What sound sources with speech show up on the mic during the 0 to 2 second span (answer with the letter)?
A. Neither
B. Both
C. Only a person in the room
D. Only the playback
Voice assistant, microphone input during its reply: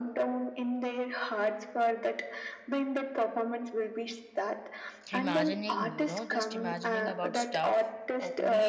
D